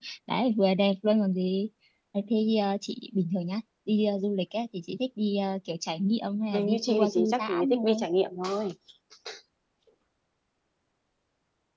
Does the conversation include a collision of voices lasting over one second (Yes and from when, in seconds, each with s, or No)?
Yes, from 6.5 s